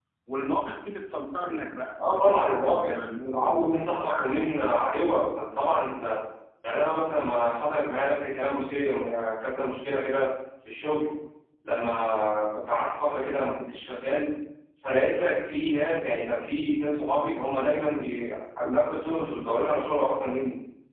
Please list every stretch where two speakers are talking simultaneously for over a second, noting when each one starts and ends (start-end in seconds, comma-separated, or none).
2.1-4.5